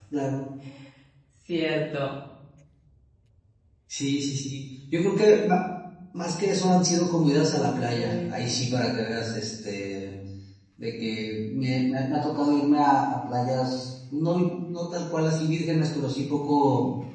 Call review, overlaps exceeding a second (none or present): present